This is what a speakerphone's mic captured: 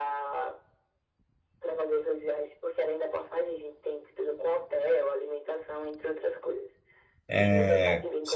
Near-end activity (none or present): present